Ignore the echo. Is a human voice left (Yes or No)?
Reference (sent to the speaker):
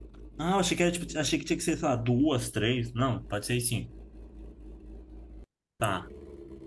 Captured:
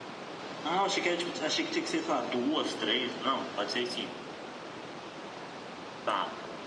No